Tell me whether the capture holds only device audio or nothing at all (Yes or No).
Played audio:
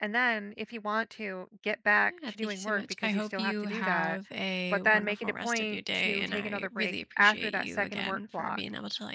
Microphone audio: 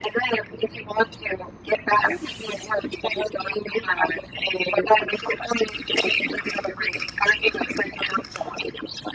Yes